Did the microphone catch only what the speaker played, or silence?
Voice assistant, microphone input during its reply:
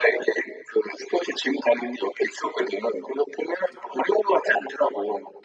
Yes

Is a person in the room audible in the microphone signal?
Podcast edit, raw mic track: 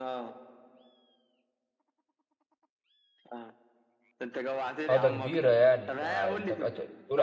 Yes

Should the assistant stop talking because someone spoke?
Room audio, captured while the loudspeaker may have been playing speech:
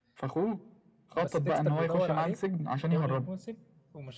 Yes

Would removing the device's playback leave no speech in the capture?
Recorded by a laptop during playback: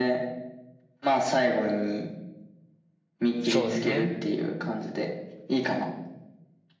No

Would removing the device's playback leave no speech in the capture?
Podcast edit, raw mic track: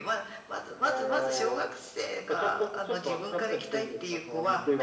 Yes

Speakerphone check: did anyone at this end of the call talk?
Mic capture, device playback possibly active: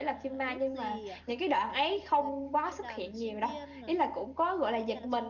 Yes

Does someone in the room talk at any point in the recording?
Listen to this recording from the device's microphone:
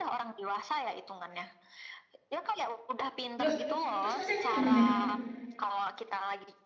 Yes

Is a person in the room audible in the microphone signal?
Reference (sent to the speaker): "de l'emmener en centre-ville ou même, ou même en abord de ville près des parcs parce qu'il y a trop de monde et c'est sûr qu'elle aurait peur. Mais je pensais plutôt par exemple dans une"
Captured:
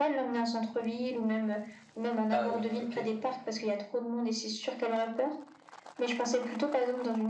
Yes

